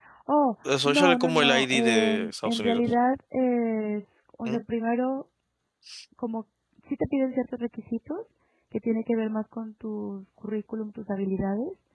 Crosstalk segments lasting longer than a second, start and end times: 0.8-2.8

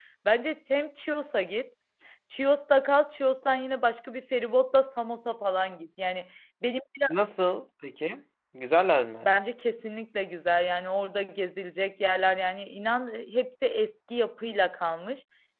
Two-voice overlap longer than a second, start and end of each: none

